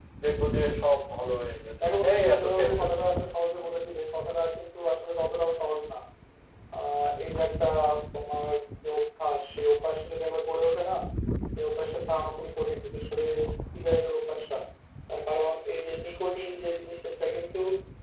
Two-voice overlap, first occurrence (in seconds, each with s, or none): 1.8 s